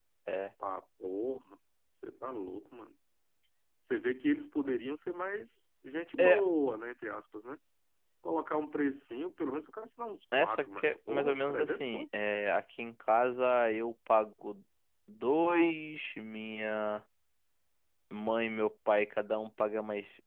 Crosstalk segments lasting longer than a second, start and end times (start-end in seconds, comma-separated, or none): 10.4-12.0